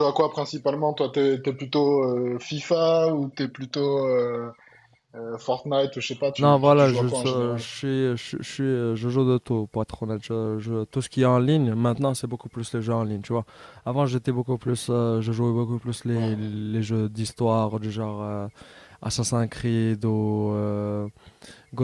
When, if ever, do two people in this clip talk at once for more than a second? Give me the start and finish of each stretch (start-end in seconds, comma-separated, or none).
6.4-7.6